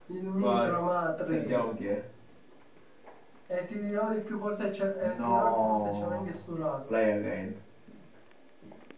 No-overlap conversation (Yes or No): No